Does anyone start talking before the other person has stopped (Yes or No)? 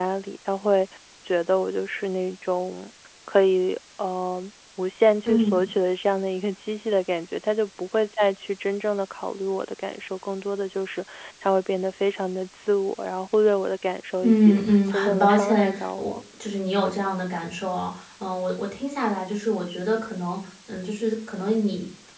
Yes